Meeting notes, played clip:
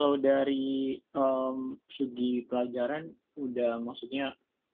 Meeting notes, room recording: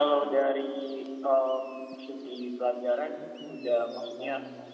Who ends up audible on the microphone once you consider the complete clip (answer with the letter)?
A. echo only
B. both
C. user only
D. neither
B